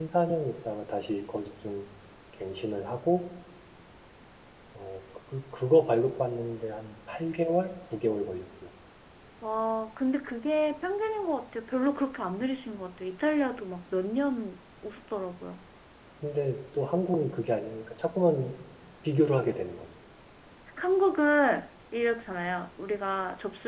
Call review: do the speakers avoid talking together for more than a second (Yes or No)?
Yes